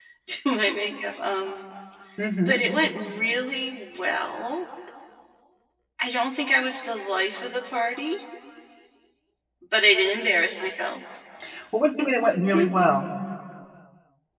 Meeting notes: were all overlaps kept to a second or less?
Yes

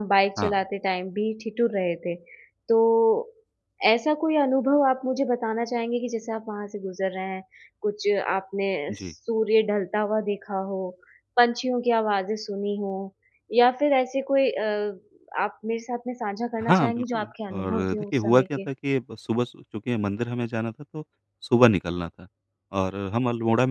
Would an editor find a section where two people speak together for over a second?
Yes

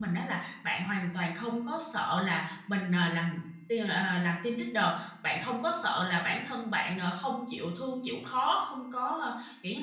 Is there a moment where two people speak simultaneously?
No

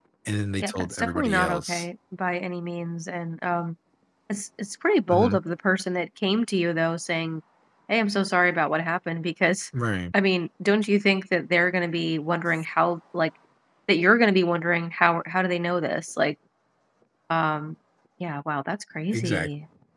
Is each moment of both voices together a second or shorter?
No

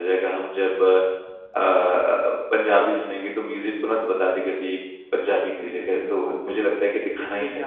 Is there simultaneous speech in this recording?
Yes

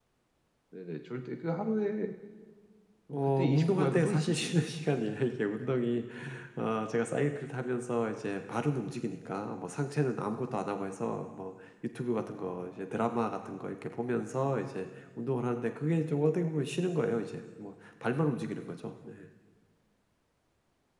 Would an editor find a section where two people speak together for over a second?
Yes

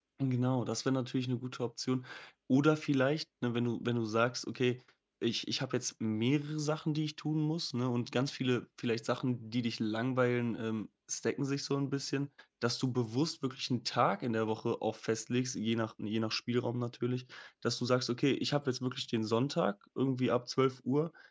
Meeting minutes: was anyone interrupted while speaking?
No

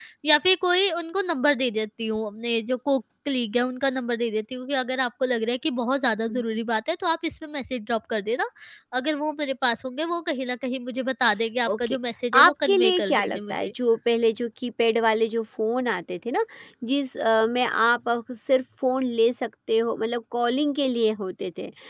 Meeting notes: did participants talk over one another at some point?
Yes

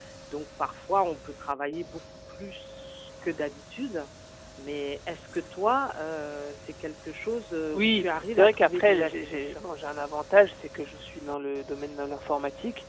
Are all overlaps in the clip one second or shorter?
No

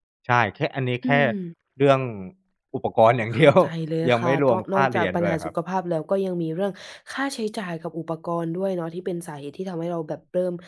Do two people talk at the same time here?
Yes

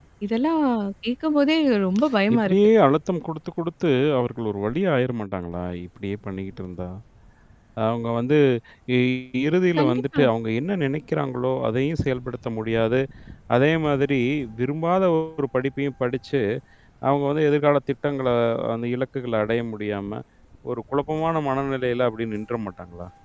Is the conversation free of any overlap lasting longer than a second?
Yes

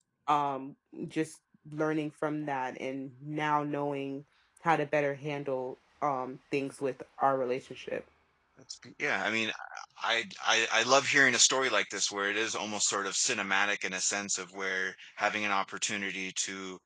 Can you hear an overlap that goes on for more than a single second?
No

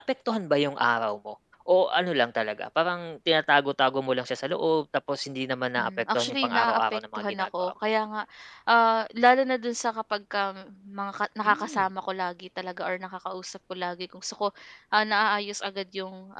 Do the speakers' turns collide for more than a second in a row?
Yes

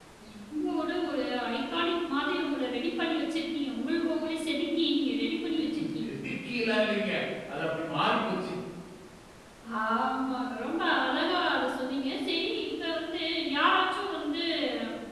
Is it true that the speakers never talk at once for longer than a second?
Yes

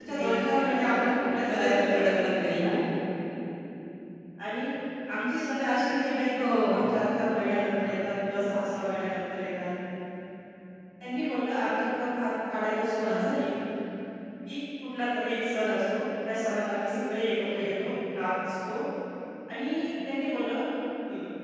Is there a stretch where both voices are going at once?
Yes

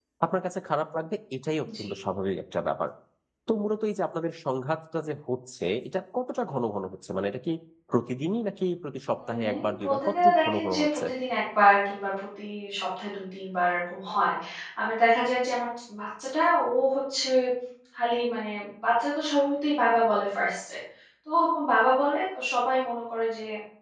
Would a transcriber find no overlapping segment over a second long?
No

